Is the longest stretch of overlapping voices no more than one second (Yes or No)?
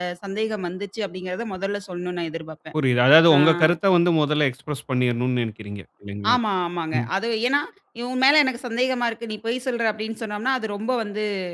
Yes